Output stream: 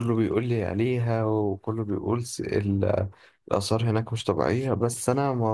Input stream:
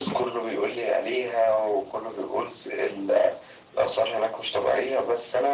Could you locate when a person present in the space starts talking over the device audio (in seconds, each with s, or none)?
none